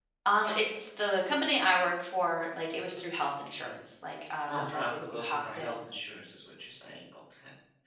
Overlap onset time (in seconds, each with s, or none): 4.5 s